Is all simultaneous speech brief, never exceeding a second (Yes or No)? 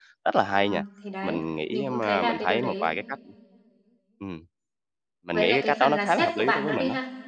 No